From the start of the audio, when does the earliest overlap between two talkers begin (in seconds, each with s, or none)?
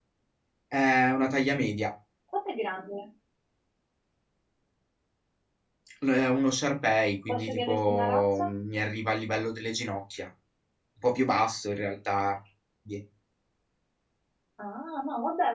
7.3 s